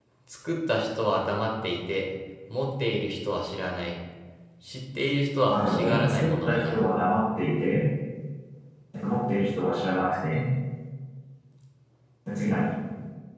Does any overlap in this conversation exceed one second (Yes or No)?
Yes